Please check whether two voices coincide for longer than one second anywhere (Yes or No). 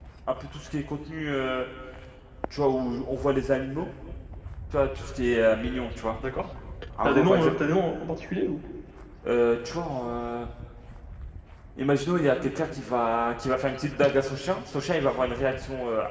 No